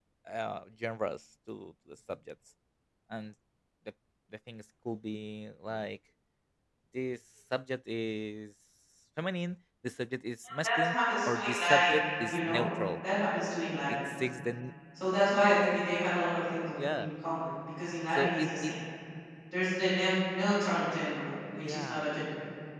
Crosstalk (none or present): present